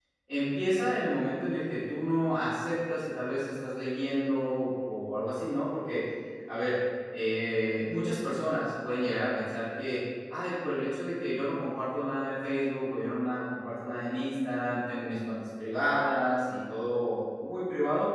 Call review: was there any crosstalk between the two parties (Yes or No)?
No